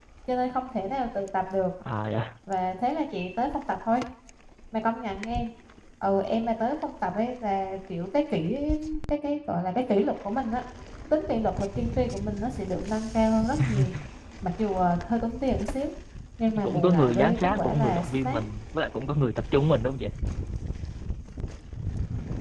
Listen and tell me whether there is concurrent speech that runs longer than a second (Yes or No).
Yes